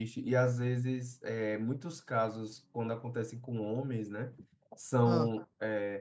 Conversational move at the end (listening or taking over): listening